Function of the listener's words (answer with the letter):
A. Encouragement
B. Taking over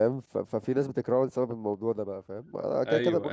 A